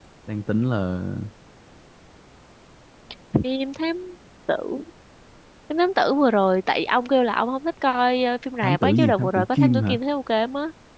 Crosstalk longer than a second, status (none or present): present